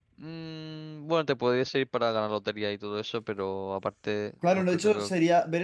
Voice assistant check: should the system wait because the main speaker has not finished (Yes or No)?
No